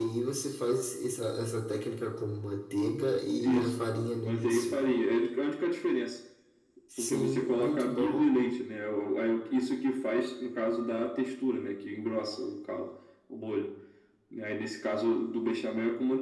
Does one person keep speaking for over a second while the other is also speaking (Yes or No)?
Yes